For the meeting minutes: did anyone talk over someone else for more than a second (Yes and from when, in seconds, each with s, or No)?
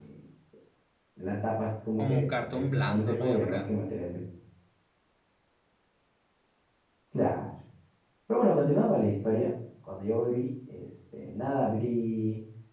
Yes, from 2.0 s